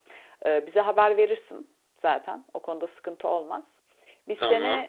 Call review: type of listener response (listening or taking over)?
listening